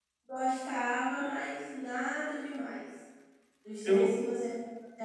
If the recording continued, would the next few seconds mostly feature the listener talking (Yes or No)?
No